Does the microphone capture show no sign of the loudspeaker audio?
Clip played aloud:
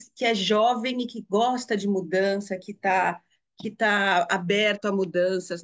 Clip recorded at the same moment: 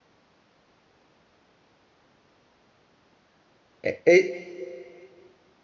Yes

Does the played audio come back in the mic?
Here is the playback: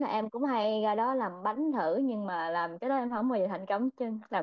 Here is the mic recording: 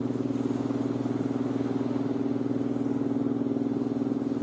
No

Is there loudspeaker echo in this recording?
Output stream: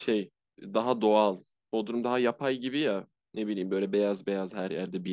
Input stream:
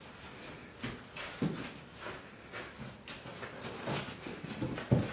No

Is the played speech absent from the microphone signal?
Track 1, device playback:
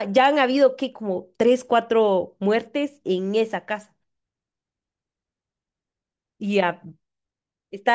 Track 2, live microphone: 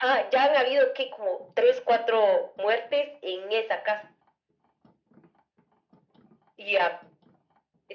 No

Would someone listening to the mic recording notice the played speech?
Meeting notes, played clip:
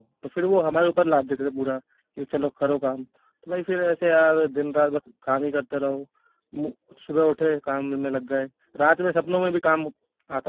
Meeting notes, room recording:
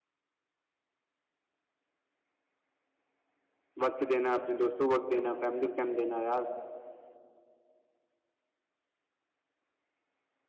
No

